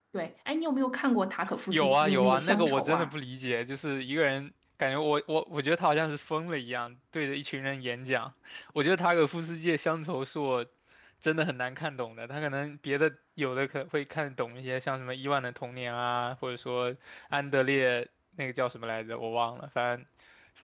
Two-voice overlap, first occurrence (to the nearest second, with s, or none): 2 s